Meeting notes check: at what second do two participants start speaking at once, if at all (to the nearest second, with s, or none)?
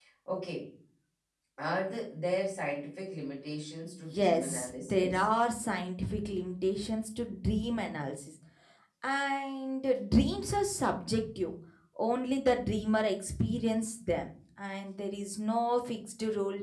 4 s